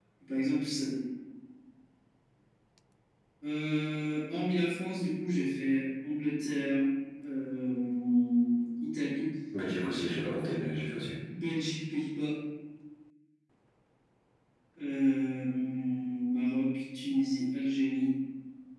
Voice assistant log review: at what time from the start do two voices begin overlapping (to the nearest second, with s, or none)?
none